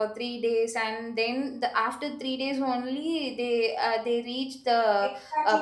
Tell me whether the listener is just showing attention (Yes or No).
No